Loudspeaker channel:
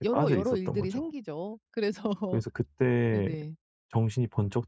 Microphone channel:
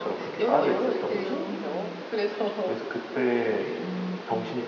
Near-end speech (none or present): present